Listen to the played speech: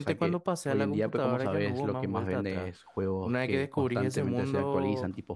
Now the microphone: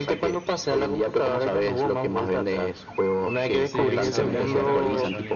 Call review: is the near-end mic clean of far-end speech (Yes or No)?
No